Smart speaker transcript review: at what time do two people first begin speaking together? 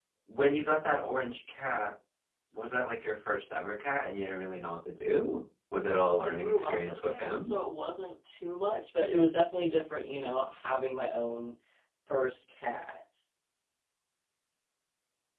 6 s

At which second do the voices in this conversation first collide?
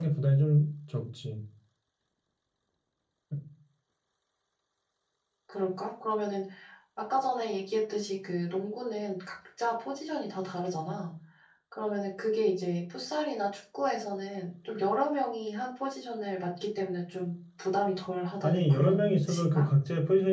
18 s

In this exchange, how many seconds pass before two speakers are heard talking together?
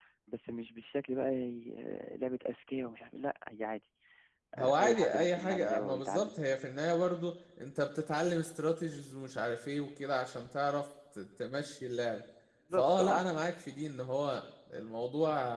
5 s

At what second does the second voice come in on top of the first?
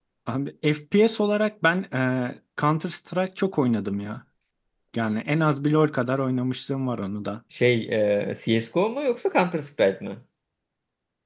none

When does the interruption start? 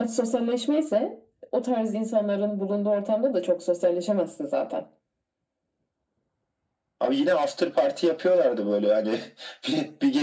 none

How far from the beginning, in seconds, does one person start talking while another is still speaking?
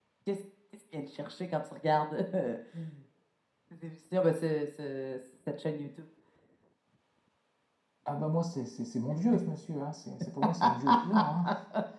none

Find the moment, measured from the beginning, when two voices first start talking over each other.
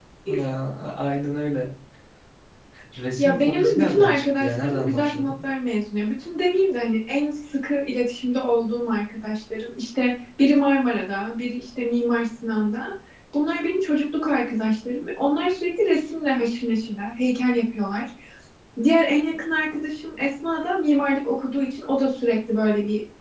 3 s

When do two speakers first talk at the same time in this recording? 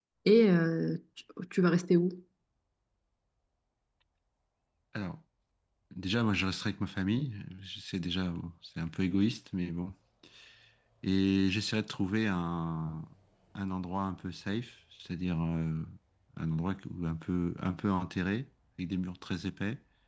none

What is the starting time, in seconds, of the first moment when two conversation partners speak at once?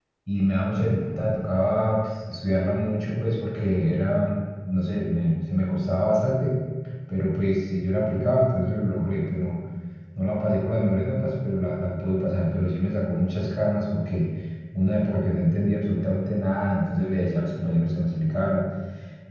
none

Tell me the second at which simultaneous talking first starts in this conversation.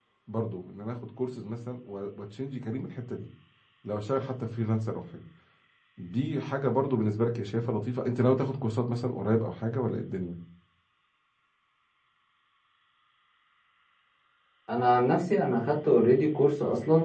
none

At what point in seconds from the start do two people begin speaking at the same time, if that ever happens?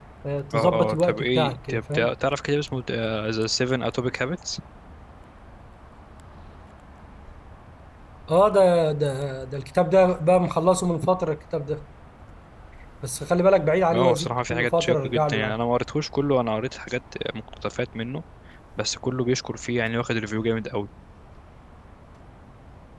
1 s

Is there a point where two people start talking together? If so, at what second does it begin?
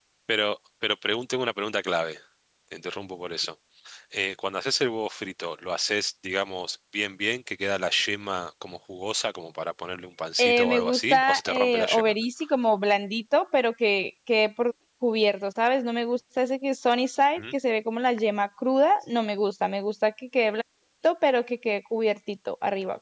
10 s

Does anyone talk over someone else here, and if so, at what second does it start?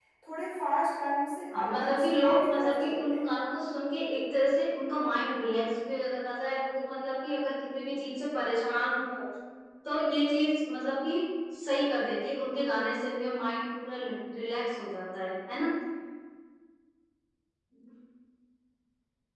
2 s

